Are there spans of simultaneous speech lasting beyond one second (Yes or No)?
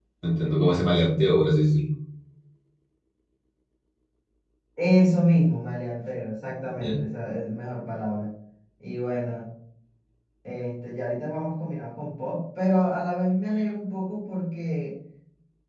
No